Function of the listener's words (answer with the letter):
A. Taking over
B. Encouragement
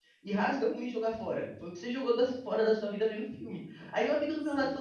B